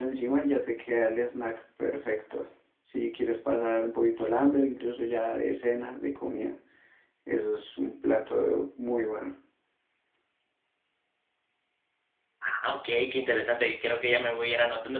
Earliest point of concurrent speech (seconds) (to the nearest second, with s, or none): none